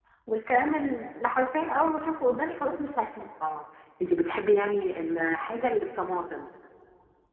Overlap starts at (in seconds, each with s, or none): none